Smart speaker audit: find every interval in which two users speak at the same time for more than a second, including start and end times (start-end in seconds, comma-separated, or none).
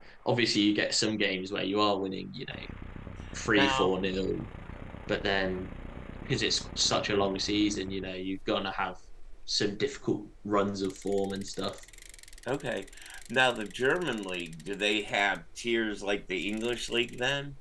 none